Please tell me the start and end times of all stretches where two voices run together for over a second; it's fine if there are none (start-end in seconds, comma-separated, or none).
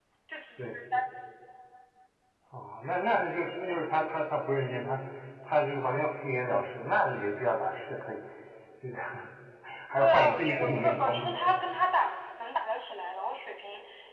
10.0-11.3